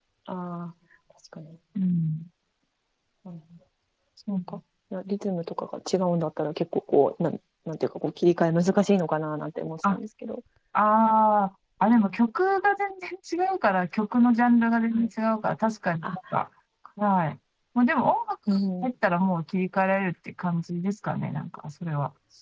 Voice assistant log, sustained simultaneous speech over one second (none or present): none